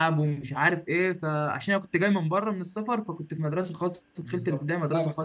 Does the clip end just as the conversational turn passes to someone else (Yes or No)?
Yes